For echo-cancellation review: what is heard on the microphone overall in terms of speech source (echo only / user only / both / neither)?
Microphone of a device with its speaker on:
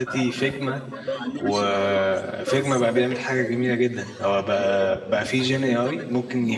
both